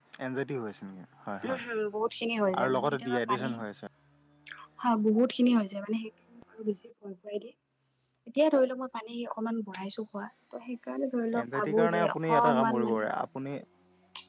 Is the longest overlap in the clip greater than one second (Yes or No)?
Yes